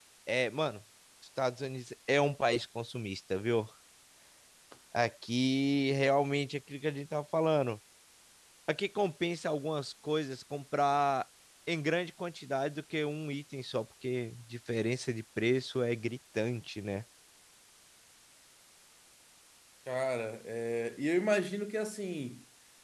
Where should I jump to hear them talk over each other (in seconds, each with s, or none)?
none